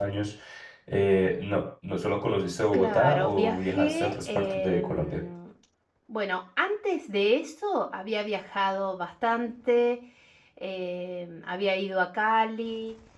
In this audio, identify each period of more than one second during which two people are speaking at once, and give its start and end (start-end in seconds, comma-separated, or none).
2.7-5.2